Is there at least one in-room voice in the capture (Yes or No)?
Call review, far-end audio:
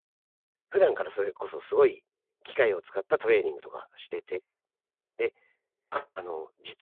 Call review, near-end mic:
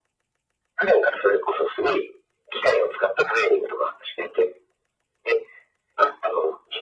No